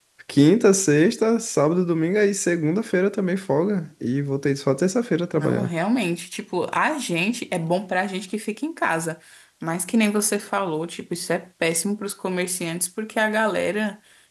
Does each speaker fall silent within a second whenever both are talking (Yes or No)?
Yes